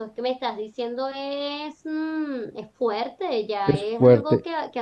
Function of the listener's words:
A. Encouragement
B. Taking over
A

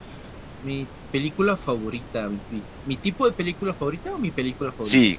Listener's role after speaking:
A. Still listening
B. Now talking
B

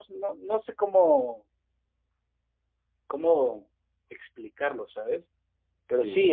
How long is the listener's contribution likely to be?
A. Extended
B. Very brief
B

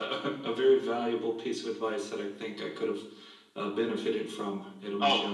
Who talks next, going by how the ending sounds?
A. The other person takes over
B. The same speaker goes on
A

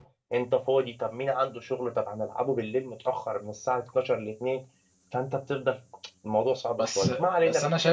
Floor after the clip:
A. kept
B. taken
B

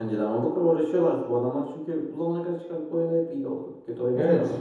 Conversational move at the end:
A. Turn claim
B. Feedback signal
A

